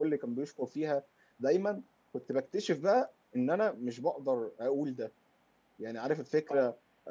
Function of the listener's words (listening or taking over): listening